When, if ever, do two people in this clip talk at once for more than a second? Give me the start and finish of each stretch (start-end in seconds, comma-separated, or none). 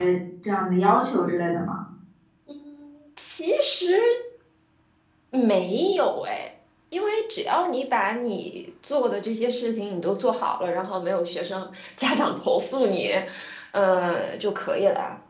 none